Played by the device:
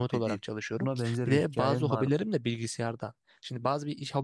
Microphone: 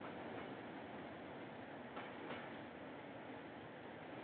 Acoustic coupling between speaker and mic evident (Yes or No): No